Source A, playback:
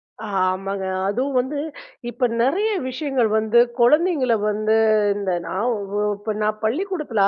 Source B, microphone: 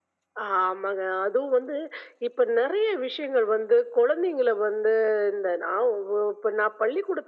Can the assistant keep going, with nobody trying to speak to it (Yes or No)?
Yes